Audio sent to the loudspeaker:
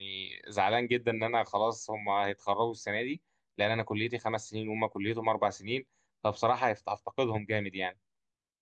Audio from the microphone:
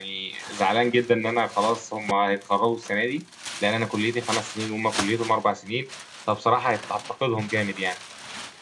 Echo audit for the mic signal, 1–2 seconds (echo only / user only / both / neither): echo only